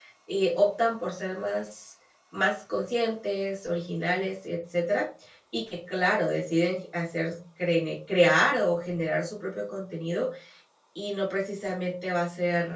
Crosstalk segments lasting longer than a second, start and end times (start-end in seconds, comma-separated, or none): none